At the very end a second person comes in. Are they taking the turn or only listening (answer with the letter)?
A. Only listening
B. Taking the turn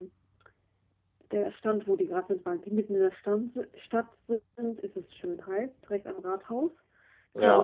B